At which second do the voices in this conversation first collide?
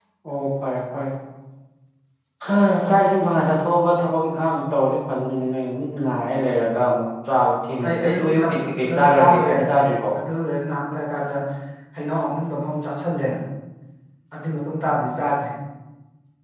7.8 s

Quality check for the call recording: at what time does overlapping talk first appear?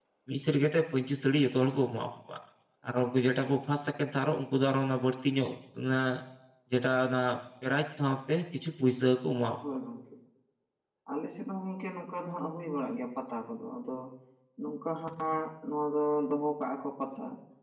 none

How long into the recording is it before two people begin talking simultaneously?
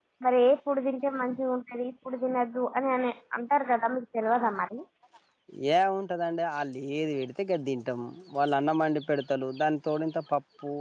none

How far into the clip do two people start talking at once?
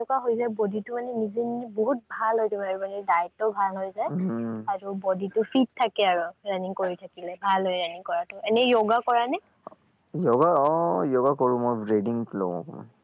none

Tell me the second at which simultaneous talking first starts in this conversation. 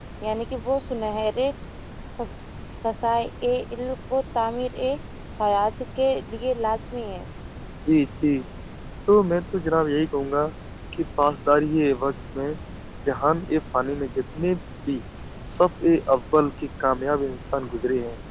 none

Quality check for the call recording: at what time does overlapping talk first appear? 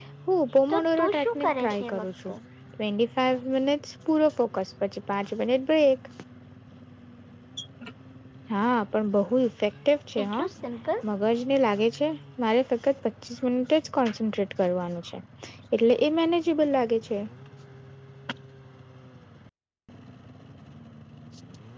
0.7 s

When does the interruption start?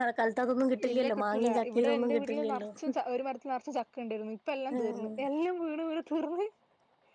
0.9 s

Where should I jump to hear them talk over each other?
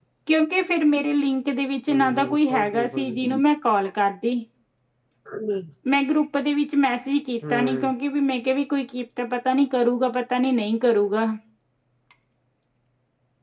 1.9 s

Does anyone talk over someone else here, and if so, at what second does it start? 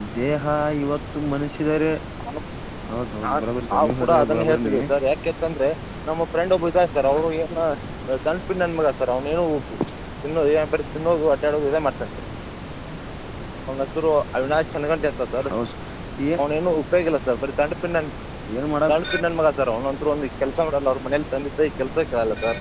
3.2 s

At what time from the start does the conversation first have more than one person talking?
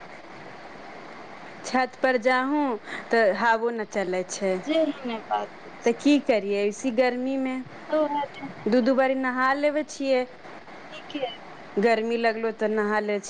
none

